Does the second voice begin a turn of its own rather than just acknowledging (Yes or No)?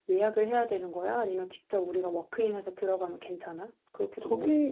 Yes